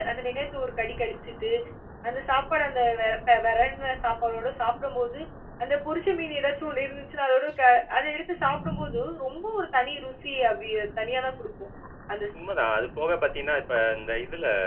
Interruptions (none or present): none